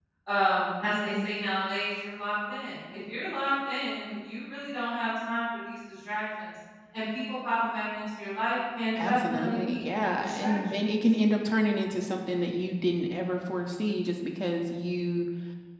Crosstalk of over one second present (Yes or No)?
Yes